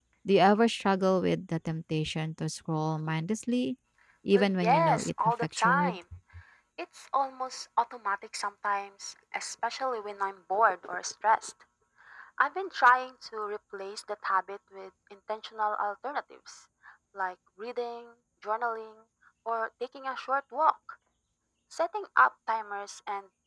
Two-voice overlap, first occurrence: 4.3 s

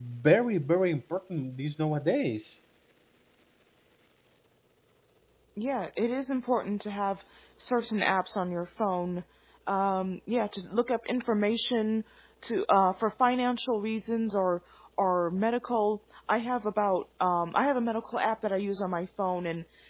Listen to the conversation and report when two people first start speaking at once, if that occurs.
none

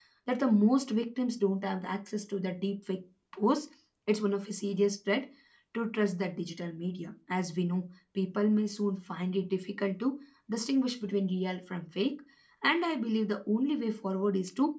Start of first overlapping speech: none

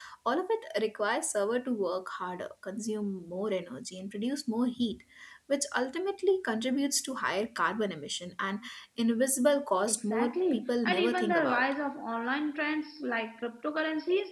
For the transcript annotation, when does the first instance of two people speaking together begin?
9.9 s

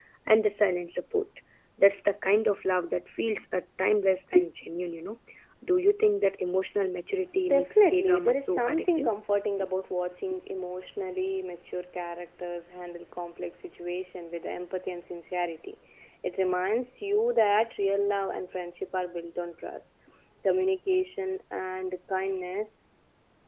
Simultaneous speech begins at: 7.5 s

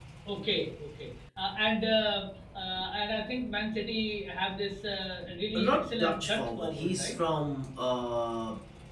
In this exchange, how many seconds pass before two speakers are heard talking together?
5.6 s

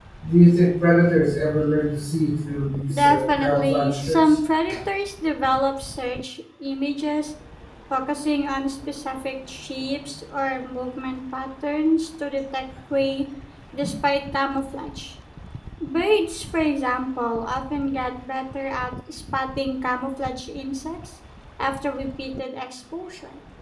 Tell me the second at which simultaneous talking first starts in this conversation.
2.9 s

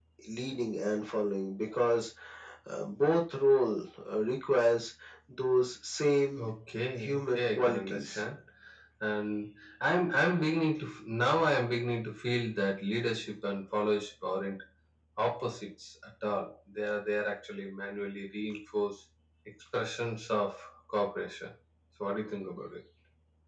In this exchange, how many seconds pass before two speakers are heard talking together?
7.0 s

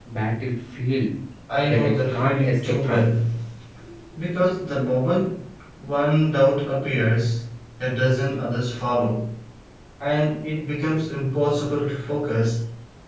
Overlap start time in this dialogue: 1.7 s

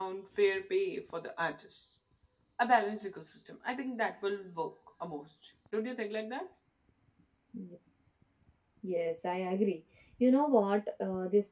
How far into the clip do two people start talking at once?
none

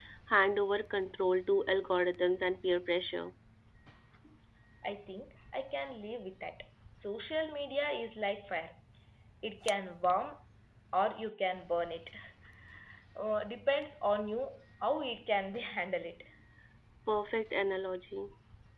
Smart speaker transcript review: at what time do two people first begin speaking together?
none

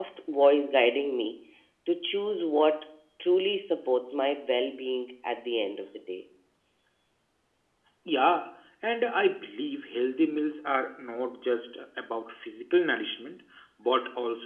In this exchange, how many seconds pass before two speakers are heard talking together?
none

